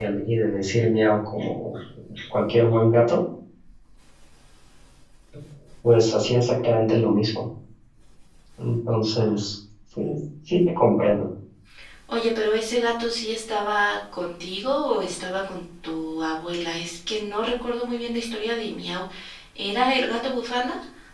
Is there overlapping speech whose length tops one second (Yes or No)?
No